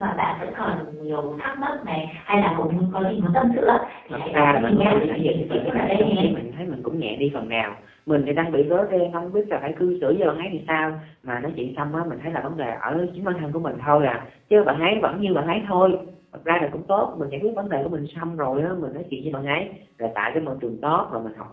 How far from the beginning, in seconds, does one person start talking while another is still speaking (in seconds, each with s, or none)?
4.1 s